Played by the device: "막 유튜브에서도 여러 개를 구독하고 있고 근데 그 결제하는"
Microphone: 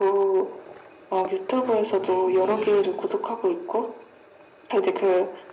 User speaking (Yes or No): Yes